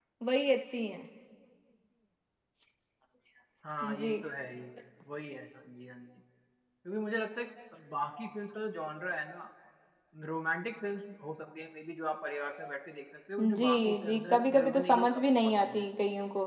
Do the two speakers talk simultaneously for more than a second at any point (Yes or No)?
Yes